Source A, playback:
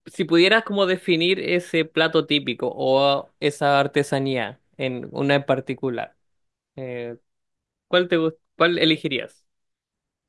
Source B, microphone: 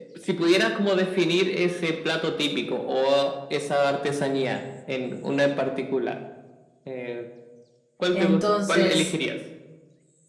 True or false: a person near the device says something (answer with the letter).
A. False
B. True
B